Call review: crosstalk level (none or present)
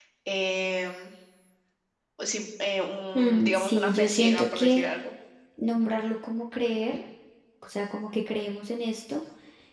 present